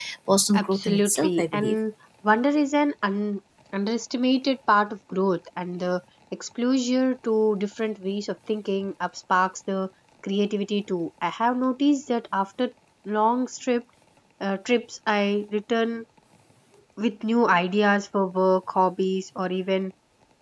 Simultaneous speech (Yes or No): Yes